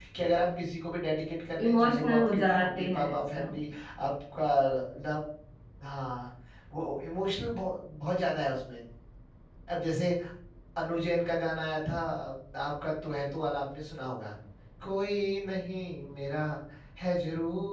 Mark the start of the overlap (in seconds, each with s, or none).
1.6 s